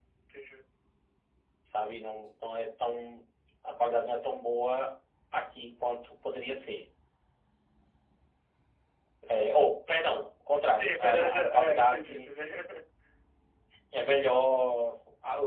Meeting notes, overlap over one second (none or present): present